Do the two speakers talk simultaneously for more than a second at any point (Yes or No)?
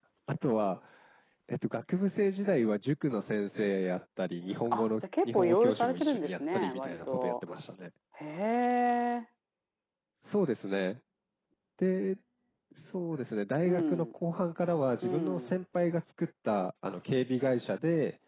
Yes